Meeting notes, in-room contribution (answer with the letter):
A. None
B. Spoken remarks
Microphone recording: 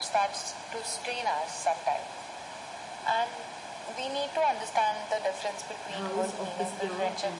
B